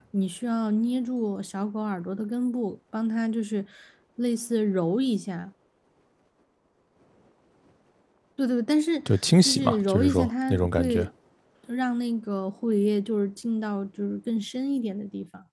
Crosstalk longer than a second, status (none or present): present